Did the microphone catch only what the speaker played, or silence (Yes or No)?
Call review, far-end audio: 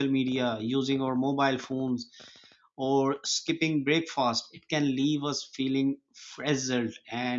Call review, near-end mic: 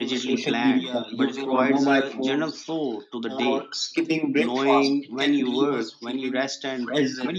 No